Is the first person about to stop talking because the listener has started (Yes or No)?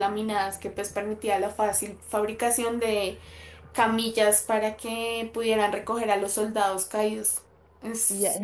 Yes